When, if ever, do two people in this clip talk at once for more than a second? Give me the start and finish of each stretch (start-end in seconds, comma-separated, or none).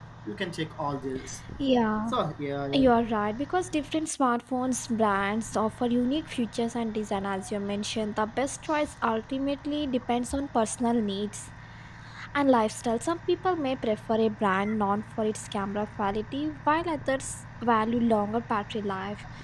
none